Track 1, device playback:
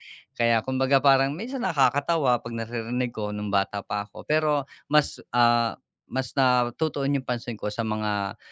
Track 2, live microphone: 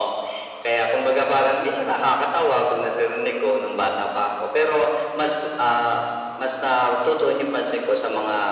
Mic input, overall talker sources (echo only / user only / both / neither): echo only